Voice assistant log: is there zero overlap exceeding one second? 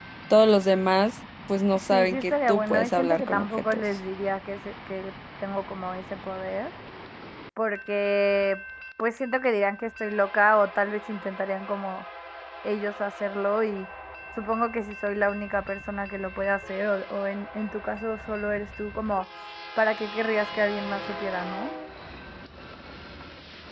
No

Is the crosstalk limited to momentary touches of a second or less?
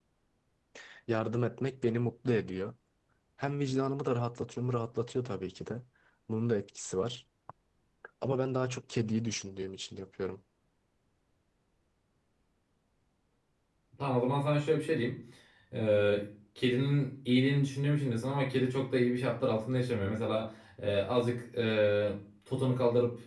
Yes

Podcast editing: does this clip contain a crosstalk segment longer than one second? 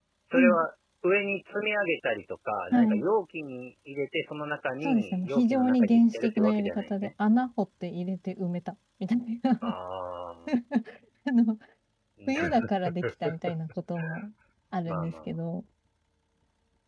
Yes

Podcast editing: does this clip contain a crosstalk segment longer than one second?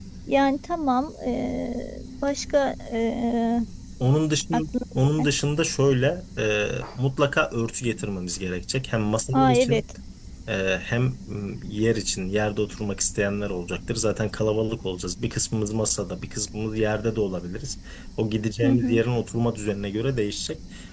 No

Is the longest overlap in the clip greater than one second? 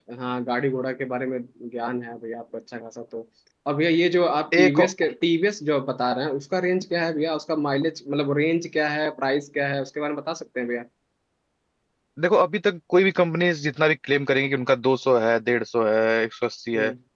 No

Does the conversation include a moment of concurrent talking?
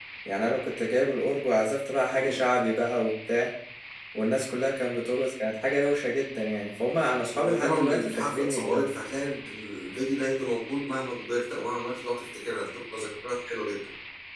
Yes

